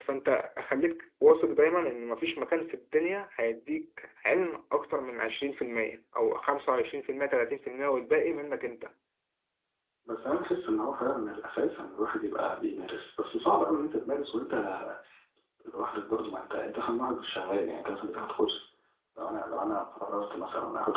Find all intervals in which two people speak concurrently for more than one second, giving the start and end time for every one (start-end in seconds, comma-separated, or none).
none